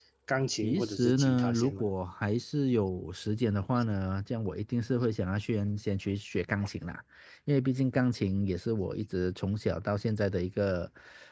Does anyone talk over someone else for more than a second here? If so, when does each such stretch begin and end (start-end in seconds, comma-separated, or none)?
0.6-1.8